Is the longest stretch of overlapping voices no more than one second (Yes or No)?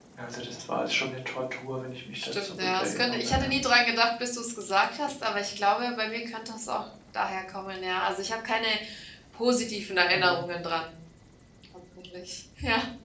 No